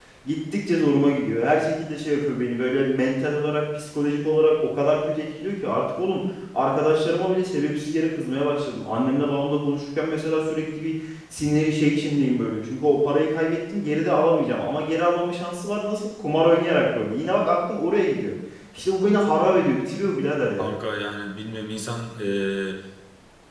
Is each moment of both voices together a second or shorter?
Yes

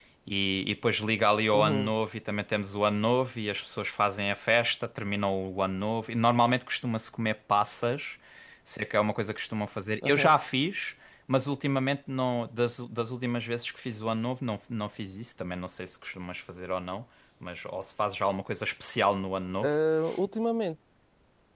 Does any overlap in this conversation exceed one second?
No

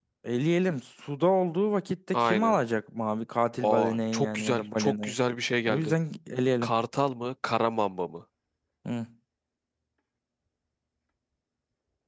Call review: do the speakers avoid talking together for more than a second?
No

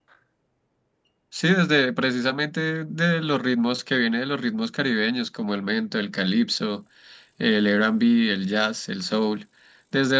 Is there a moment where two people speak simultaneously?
No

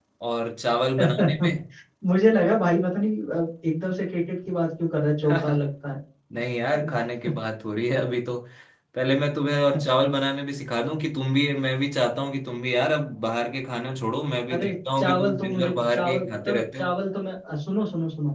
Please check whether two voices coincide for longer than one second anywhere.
Yes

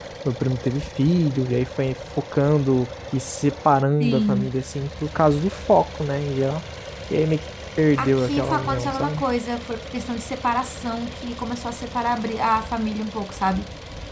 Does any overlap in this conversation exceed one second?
Yes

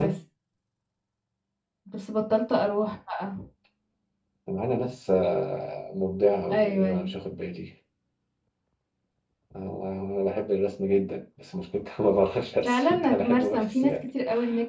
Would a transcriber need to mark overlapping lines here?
Yes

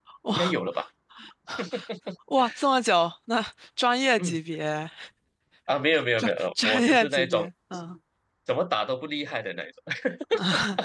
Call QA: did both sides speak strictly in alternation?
No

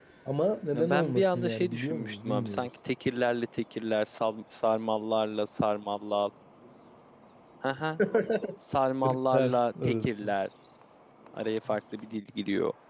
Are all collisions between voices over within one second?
No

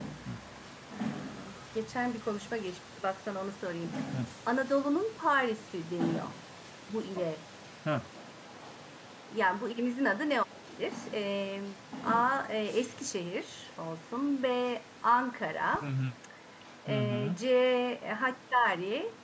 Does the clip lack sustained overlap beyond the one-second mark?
Yes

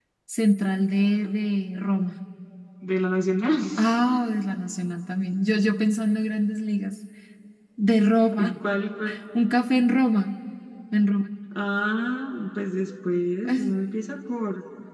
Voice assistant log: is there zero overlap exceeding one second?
Yes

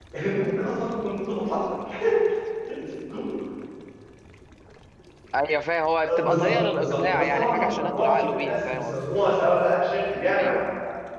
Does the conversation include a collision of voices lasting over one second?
Yes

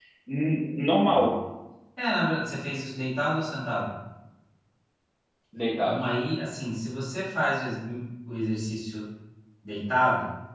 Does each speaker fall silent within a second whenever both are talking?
Yes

